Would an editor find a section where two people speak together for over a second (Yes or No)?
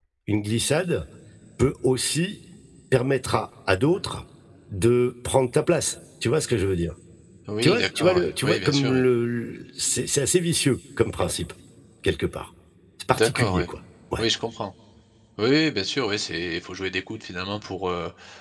Yes